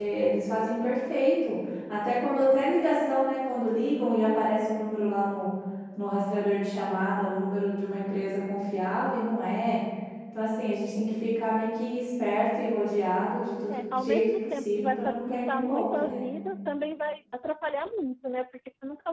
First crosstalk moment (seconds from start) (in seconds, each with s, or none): 13.7 s